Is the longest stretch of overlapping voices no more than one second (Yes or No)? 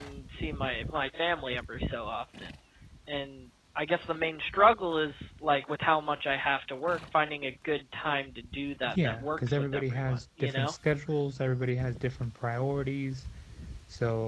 No